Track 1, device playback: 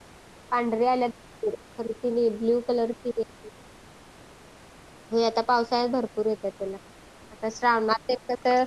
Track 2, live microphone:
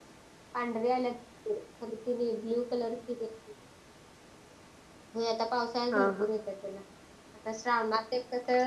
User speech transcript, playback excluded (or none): हा हा